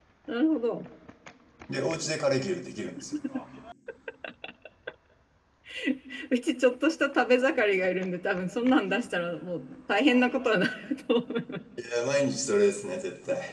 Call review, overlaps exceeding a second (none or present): none